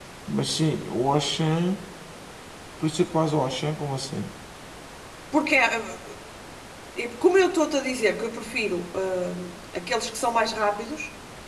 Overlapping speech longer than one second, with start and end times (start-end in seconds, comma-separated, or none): none